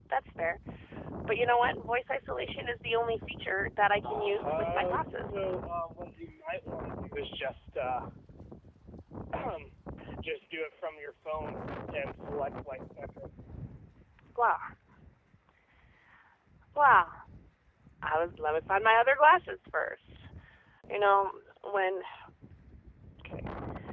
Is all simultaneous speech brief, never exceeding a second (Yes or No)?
No